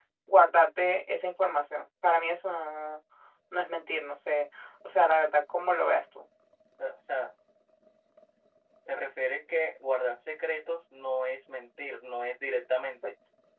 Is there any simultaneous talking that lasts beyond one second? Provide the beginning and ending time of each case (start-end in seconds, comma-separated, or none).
none